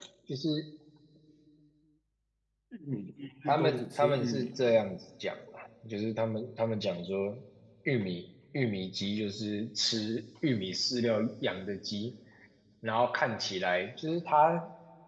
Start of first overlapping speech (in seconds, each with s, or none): 3.5 s